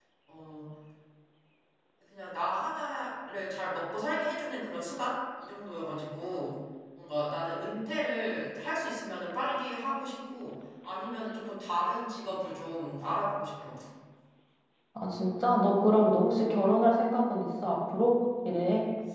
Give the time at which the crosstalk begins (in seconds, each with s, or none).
none